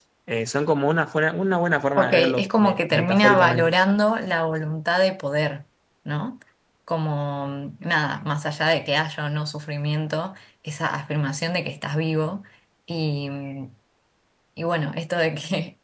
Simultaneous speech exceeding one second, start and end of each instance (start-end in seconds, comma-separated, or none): 2.0-3.7